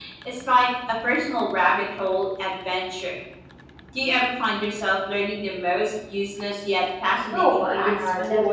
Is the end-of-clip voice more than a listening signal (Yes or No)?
Yes